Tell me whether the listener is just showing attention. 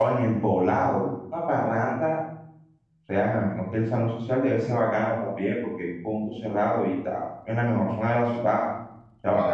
No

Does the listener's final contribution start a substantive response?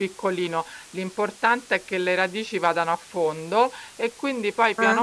No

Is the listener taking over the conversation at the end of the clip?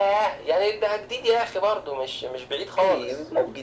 Yes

